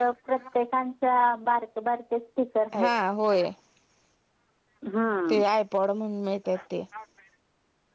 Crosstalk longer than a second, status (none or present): none